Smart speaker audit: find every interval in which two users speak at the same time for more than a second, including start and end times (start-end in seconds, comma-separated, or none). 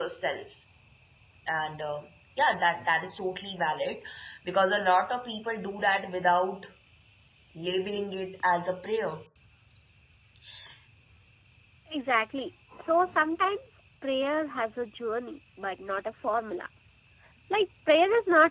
none